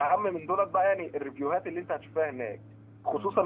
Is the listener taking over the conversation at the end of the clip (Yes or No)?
No